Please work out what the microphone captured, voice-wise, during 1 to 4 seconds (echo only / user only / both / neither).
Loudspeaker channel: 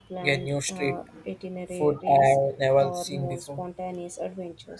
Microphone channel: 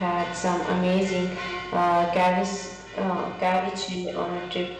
user only